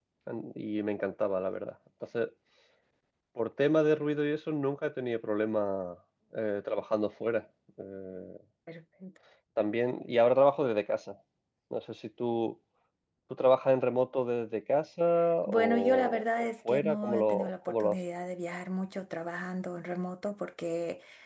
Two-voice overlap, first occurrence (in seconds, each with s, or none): 15.5 s